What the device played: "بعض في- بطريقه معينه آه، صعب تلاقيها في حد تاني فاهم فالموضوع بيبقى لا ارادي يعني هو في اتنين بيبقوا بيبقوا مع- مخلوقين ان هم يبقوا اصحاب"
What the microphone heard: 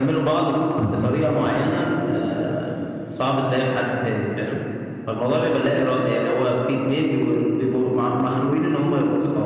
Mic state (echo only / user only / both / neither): both